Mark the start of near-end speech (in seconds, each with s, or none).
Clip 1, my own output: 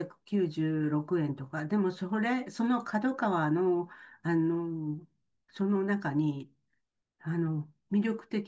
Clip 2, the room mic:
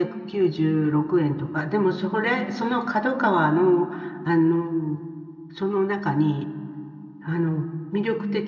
none